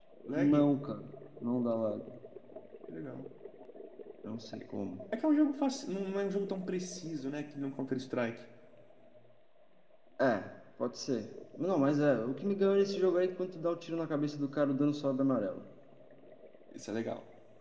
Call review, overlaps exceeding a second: none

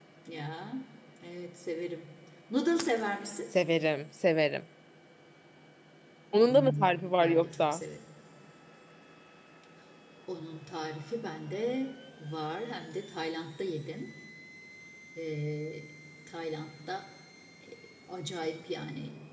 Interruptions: present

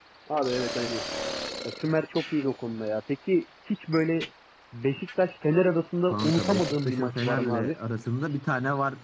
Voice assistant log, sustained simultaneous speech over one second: present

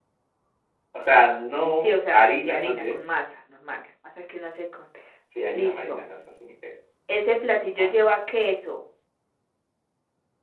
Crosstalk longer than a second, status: present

